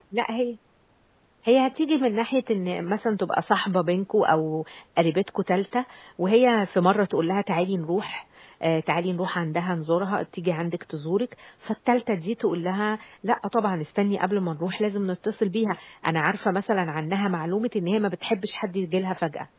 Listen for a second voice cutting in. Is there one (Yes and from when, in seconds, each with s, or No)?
No